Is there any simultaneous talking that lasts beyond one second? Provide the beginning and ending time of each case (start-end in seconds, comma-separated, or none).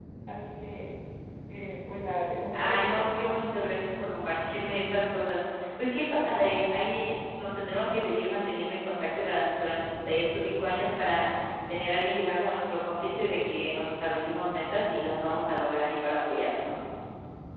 none